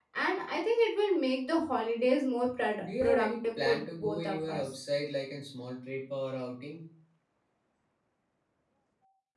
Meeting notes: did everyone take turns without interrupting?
No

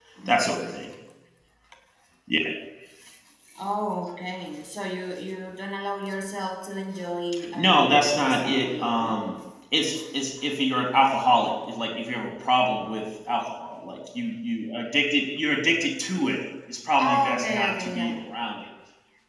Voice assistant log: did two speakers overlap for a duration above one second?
Yes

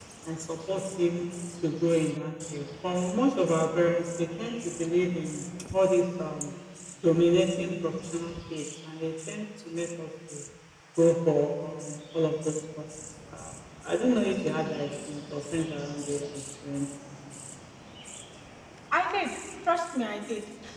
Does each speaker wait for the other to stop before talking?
Yes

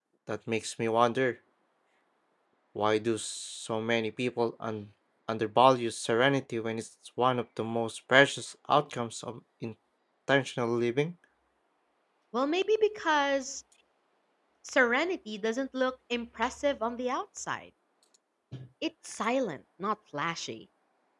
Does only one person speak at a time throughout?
Yes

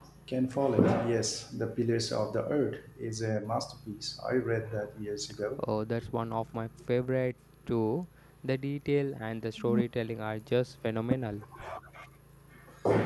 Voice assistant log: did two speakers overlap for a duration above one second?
No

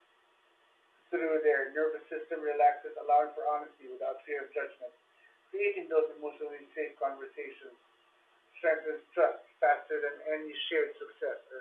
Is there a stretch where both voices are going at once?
No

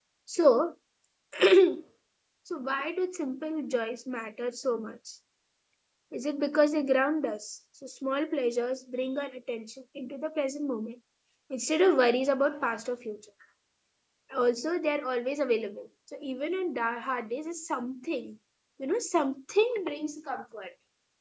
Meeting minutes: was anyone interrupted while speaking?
No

